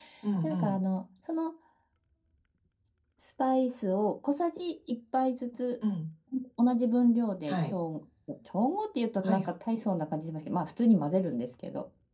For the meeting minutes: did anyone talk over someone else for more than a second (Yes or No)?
No